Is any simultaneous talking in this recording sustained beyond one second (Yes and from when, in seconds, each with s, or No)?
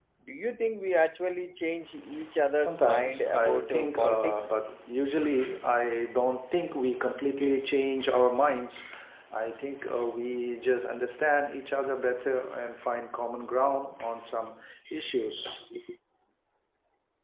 Yes, from 2.6 s